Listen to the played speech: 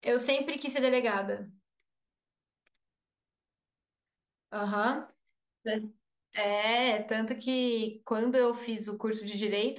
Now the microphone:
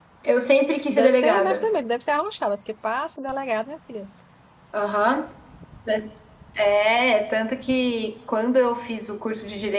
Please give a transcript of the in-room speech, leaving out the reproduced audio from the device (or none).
Deve ser, deve ser mesmo, deve ser arrochada, porque passa delegado, minha filha.